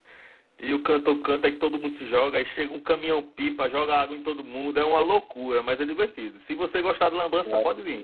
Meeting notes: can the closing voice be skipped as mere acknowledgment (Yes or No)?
Yes